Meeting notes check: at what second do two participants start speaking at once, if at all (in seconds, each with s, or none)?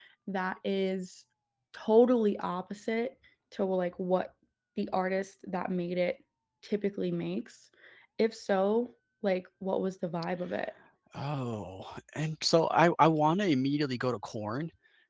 none